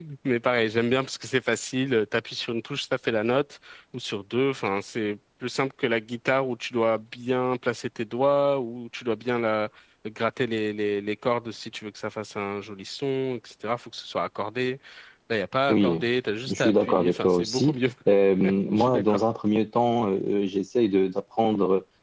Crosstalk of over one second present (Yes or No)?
Yes